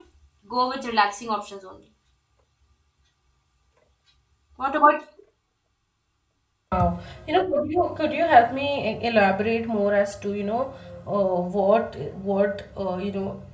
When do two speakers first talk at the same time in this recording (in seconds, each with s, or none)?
none